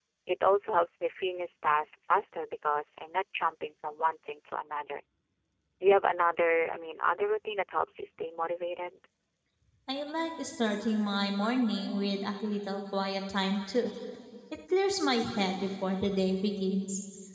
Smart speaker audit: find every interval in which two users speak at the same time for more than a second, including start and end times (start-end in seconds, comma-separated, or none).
none